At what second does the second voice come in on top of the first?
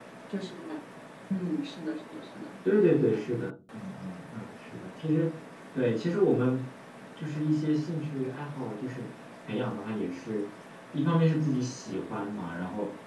none

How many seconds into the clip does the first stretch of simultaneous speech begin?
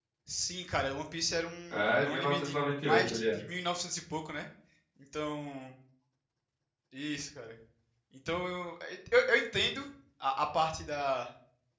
2 s

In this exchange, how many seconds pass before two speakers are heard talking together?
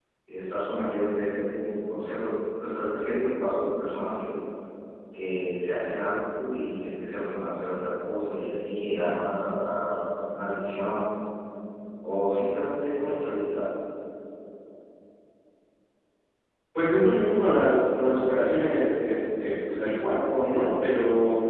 none

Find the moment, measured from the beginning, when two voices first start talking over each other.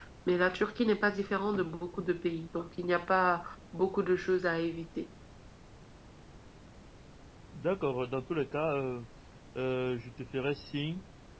none

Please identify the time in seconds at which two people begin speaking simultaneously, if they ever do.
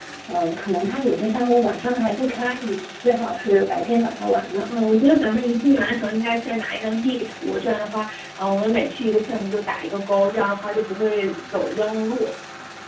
none

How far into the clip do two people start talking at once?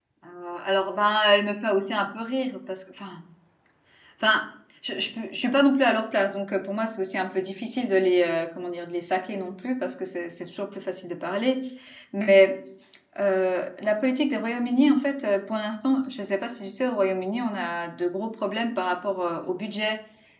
none

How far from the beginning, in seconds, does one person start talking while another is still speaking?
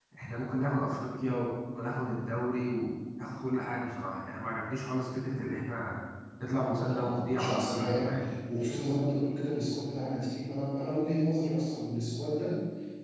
7 s

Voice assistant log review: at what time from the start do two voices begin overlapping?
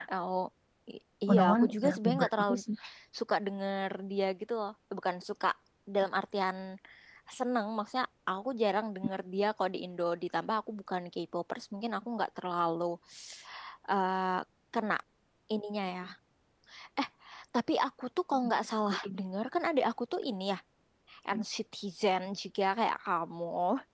1 s

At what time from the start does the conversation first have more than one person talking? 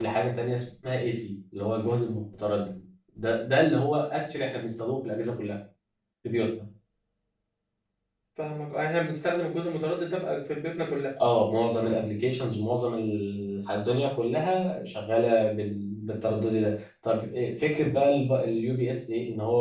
none

